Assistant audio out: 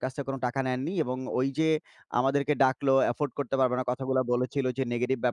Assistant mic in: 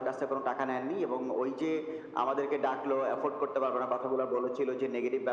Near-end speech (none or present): none